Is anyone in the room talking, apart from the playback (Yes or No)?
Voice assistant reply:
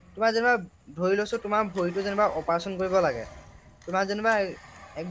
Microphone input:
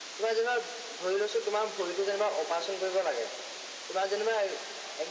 No